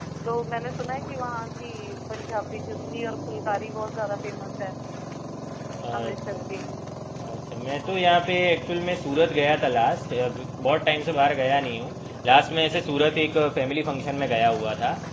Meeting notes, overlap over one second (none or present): none